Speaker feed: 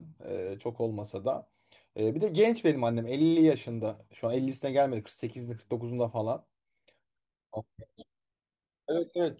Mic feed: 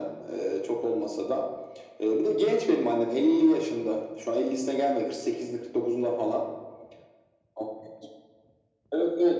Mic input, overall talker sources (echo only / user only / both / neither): echo only